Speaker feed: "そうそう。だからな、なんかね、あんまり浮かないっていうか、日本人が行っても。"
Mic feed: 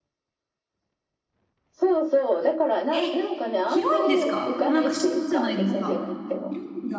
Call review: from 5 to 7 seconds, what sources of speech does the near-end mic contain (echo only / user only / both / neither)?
both